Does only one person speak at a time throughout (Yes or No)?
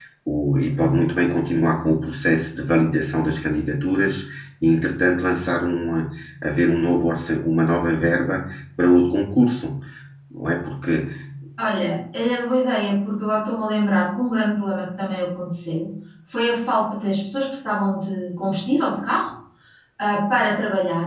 Yes